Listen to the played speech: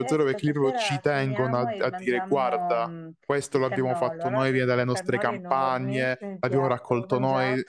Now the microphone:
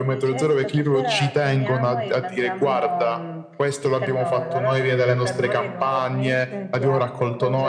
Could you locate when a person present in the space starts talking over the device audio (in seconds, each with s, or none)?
none